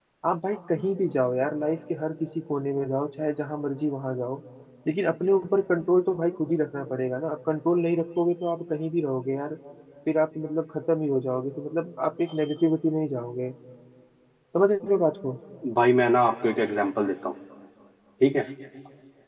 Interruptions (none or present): none